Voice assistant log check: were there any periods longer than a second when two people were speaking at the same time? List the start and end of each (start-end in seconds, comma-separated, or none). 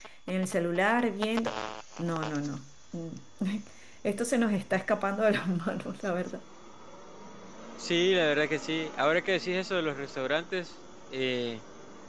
none